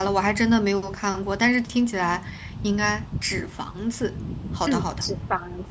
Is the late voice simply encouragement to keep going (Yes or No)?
No